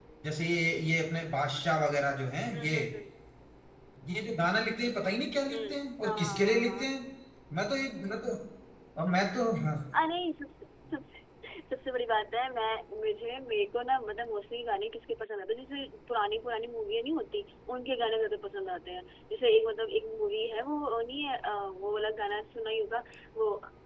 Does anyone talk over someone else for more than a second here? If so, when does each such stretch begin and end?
5.5-6.9

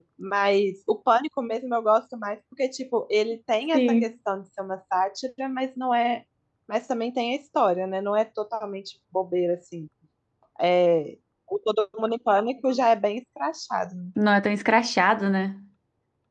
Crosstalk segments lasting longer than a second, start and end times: none

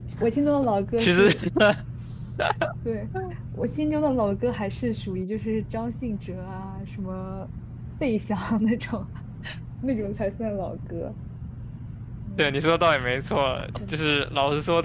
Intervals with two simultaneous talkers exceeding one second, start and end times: none

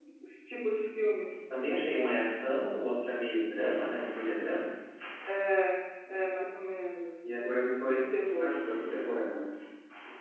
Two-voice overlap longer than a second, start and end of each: 7.3-8.6

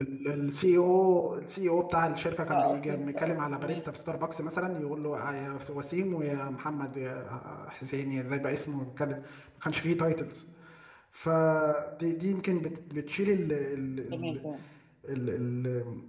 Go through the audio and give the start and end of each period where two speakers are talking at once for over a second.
2.5-3.8

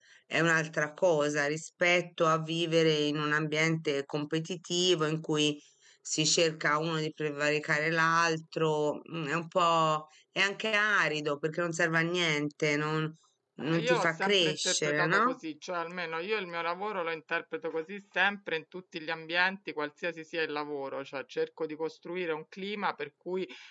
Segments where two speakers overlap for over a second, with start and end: 13.6-15.4

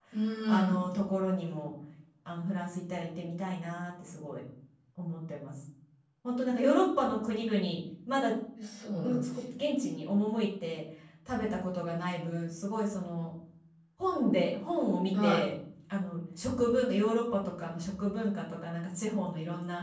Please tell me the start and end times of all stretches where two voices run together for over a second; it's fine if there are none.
none

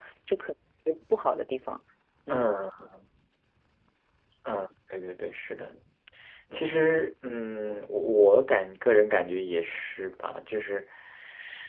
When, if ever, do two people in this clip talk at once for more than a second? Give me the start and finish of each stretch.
none

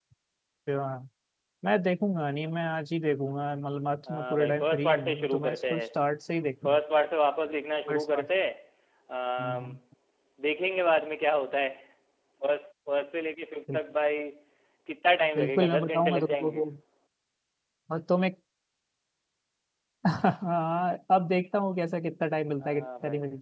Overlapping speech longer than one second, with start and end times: 4.1-5.8, 15.3-16.6

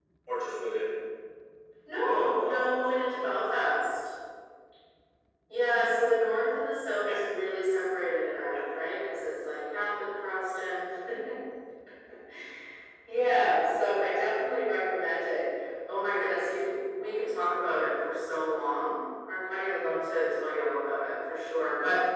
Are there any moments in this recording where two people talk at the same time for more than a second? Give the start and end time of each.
2.1-3.3

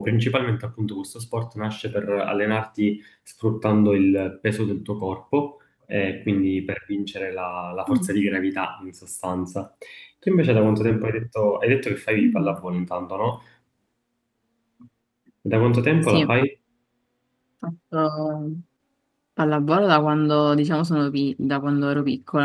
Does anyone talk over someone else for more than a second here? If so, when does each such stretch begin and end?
none

